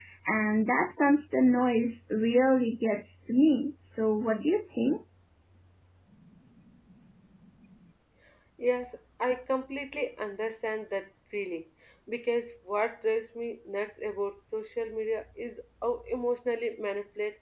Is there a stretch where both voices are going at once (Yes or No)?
No